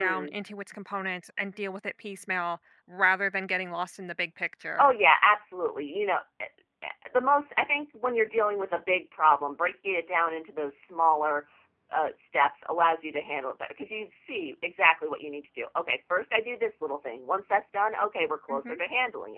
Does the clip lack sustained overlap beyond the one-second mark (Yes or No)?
Yes